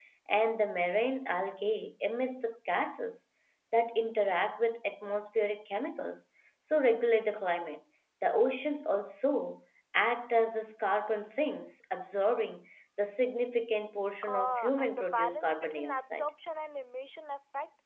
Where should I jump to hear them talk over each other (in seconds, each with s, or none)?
14.2 s